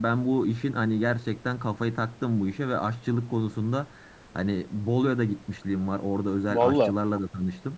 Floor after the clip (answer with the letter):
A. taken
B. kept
B